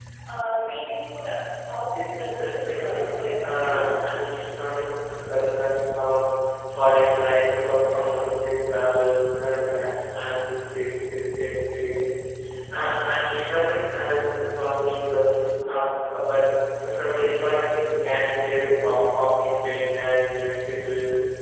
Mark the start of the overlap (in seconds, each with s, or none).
2.4 s